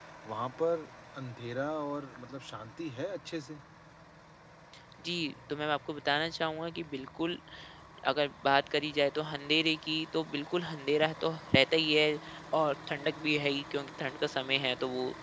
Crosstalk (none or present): none